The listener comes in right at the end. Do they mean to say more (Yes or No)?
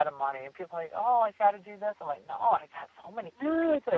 Yes